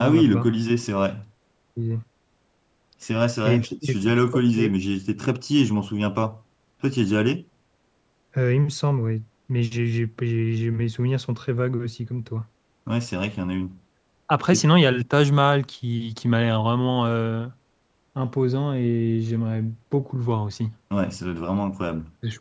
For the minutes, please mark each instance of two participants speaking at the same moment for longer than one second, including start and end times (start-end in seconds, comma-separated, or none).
3.4-4.7